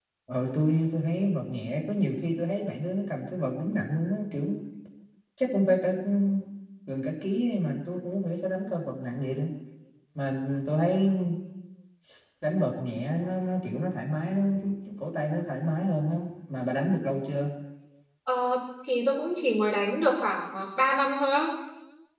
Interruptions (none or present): none